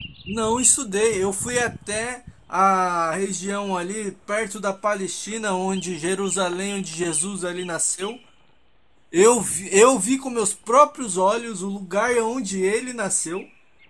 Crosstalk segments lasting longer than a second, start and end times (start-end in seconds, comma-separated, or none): none